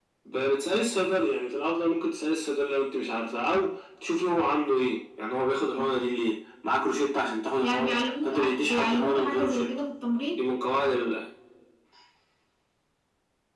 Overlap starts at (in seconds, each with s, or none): 7.6 s